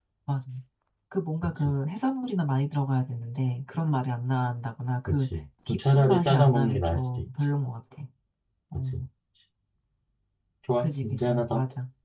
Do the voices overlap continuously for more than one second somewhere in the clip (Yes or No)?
Yes